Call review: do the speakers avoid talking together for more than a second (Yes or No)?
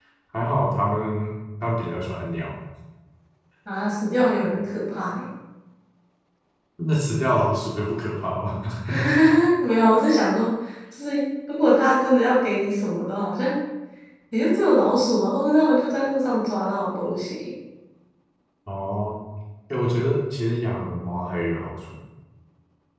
Yes